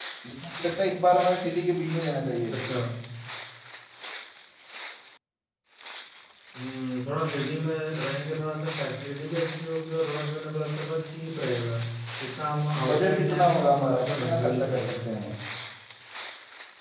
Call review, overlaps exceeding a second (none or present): present